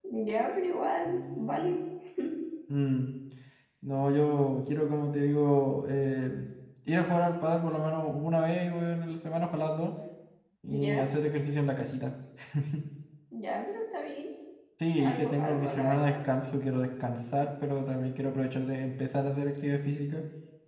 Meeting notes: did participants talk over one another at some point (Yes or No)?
Yes